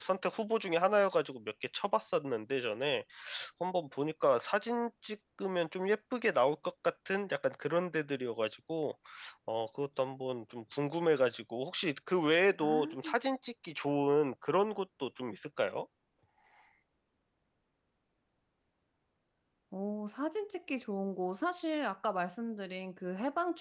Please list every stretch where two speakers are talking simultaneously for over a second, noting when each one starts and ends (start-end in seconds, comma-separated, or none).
none